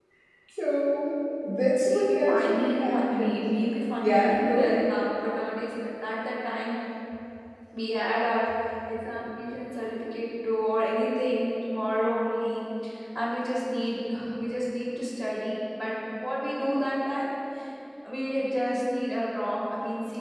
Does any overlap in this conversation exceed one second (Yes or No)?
Yes